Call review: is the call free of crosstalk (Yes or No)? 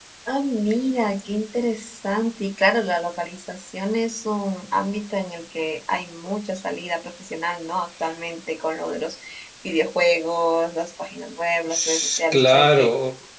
No